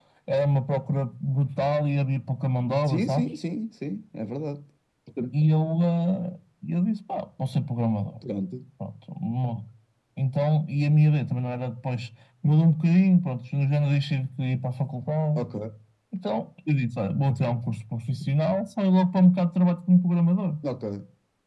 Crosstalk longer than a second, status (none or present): none